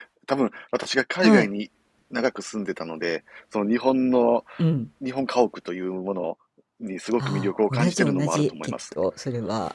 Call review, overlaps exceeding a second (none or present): present